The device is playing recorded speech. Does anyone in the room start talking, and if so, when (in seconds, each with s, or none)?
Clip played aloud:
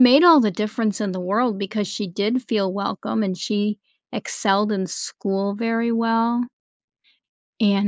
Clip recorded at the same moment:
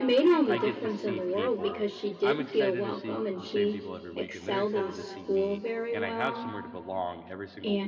0.4 s